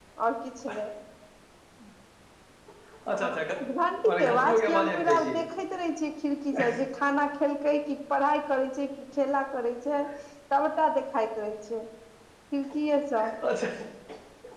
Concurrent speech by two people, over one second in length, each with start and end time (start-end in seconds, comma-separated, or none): 4.1-5.3